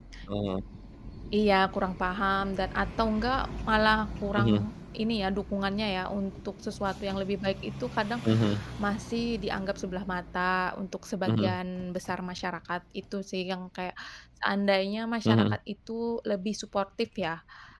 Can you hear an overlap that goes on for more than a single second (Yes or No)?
No